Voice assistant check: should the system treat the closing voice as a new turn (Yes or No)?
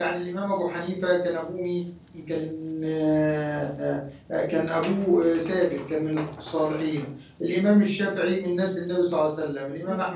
No